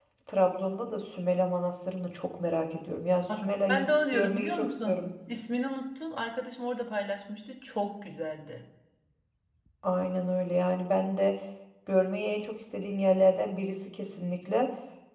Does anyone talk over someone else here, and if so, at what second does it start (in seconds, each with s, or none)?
3.3 s